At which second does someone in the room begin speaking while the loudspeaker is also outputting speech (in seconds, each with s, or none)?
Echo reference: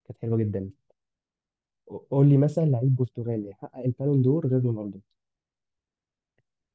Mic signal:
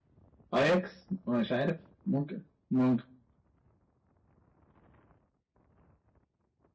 0.5 s